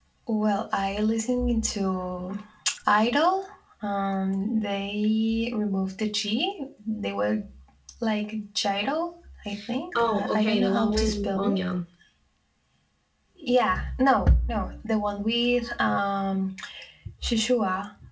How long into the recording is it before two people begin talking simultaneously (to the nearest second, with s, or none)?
10 s